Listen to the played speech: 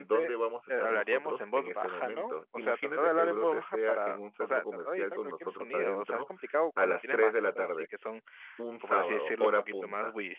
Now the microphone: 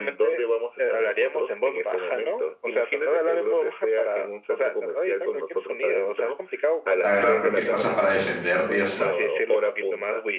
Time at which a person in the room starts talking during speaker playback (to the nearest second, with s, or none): 7 s